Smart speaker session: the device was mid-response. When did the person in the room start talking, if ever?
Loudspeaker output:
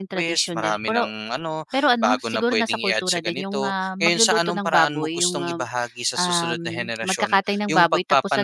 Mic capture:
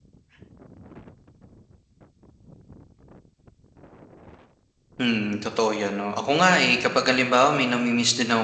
5.0 s

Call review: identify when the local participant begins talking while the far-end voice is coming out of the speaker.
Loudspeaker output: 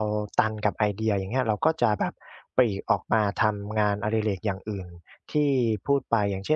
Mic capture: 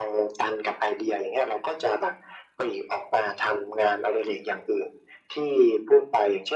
none

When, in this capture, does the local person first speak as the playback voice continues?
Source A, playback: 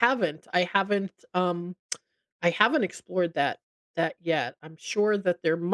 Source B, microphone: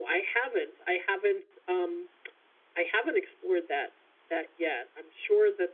none

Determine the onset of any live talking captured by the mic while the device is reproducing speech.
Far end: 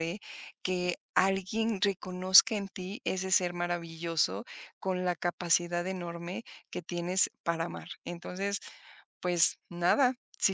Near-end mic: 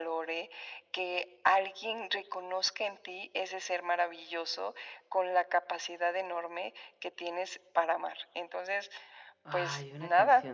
9.4 s

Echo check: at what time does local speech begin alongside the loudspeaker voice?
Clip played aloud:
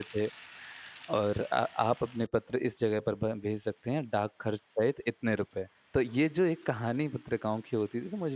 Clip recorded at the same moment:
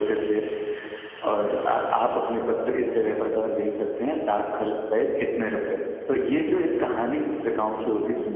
none

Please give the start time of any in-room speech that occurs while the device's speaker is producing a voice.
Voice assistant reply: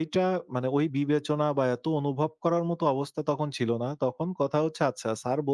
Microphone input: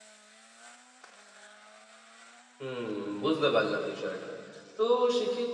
2.6 s

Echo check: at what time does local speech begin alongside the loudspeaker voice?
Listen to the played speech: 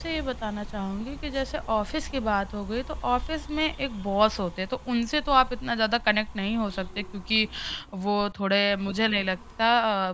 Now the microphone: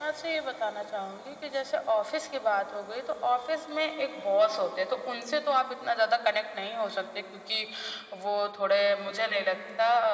none

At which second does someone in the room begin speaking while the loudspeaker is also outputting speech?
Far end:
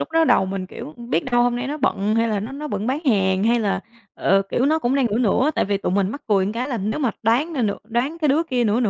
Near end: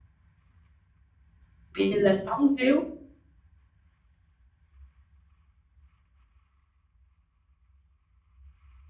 1.7 s

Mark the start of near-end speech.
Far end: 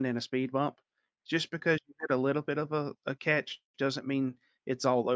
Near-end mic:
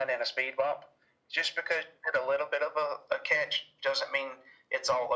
none

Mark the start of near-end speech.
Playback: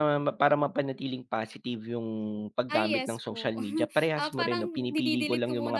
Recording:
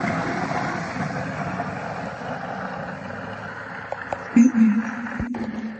4.3 s

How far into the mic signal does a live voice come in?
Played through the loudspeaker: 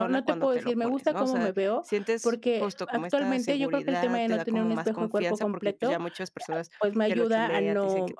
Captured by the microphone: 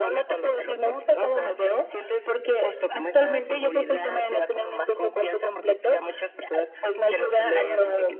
none

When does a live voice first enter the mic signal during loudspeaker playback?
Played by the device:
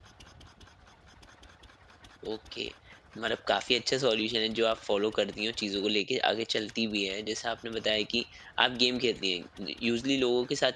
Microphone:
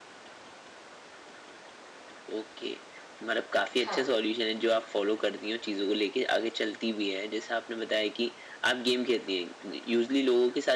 3.8 s

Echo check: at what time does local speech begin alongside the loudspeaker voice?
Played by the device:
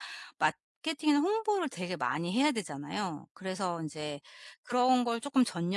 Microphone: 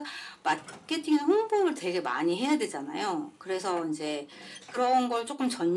none

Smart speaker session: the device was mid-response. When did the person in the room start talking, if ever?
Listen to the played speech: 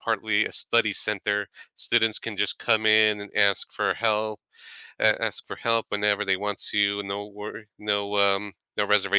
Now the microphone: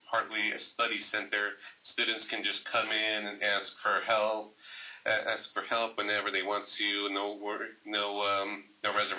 none

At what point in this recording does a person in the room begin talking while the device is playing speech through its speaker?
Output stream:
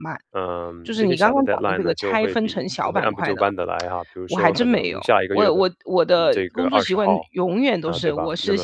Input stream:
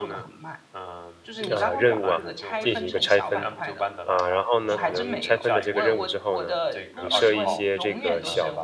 1.5 s

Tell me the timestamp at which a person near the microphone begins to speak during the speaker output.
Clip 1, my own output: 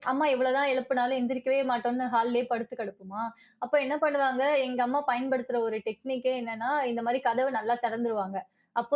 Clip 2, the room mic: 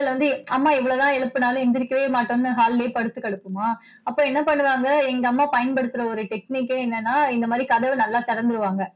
none

